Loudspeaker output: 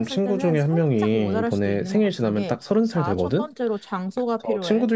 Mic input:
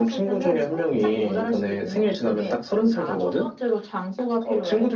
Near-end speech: none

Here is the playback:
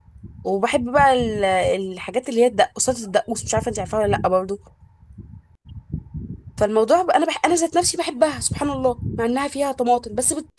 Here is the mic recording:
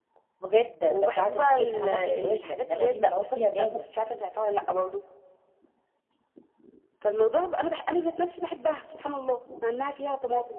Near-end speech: present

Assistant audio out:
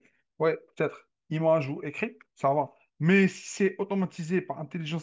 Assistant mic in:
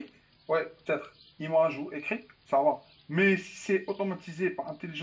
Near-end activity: none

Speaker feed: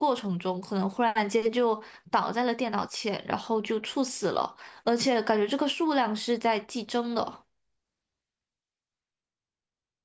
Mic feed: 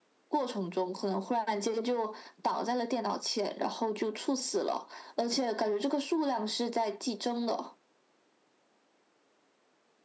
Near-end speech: none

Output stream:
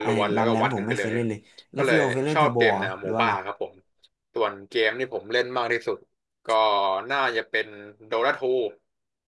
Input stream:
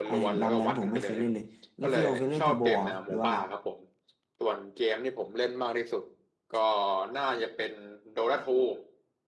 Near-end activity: none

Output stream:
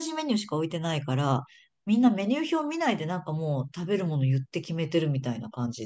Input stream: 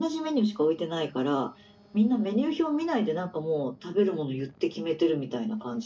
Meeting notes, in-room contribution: none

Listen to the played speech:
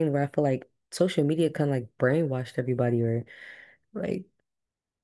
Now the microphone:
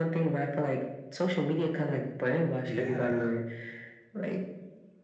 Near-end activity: present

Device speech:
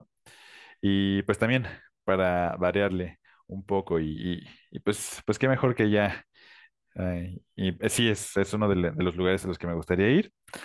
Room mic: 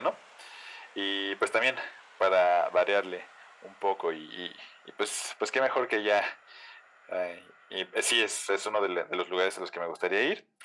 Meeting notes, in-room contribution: none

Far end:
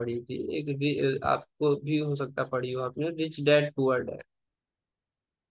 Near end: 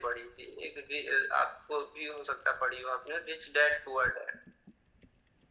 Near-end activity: none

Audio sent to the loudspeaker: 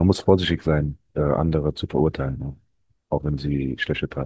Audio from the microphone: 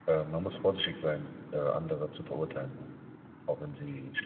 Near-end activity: none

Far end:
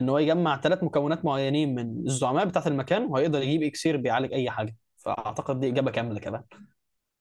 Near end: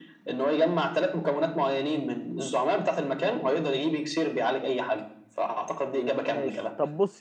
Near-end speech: present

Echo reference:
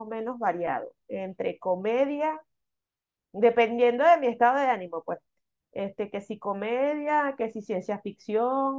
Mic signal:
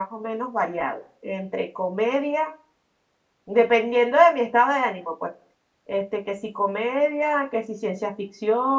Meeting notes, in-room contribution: none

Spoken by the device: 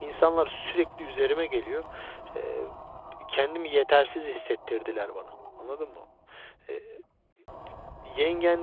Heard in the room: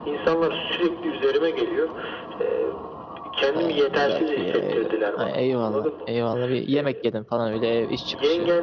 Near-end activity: present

